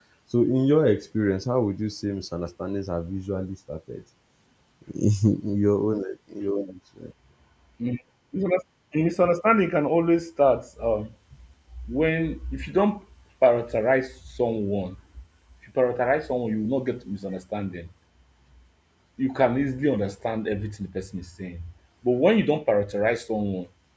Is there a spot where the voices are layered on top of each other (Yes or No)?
No